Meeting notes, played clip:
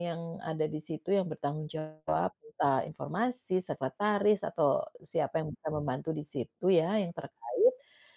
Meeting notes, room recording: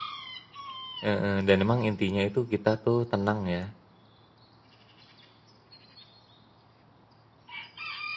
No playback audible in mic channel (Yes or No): Yes